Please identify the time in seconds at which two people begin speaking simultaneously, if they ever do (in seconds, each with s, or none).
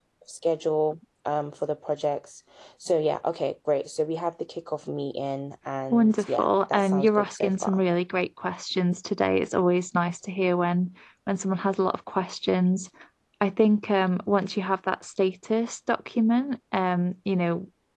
5.9 s